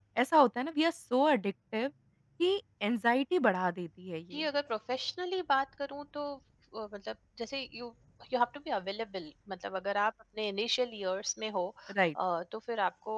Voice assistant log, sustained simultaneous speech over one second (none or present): none